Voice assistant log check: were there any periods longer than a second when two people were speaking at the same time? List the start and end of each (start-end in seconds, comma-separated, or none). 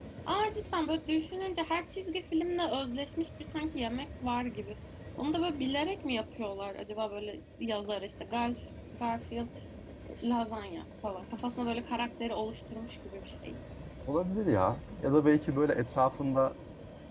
none